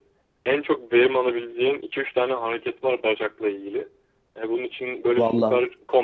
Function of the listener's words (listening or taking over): listening